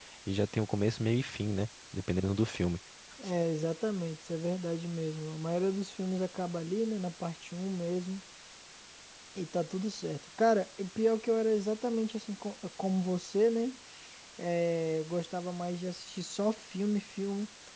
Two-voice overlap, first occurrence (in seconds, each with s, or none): none